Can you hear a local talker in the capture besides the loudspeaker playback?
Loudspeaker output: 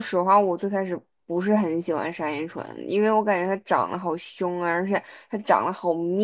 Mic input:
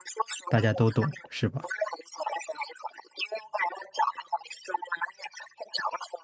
Yes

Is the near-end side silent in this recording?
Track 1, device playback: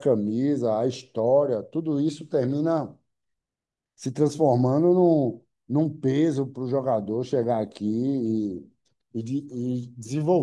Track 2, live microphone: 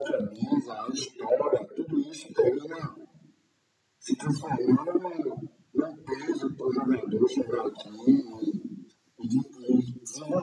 Yes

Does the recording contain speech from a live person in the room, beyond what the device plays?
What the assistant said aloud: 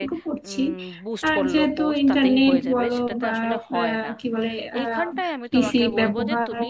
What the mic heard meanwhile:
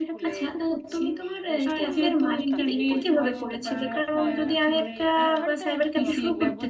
Yes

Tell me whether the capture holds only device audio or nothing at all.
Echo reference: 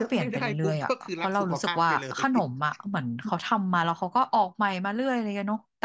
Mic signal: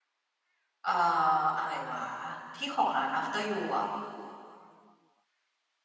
No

